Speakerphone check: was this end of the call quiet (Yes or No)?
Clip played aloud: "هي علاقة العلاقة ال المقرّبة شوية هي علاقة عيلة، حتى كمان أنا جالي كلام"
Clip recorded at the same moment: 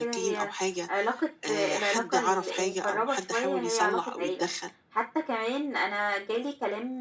No